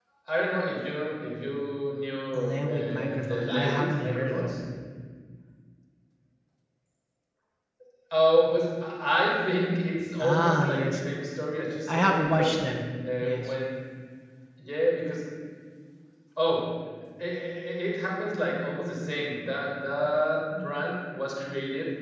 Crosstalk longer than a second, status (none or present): present